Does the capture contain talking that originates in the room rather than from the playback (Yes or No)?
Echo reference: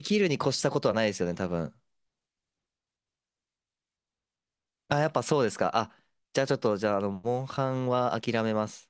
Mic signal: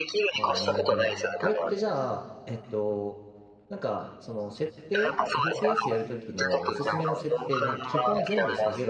Yes